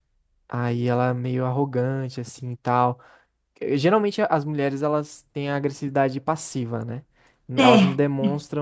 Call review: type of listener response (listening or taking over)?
listening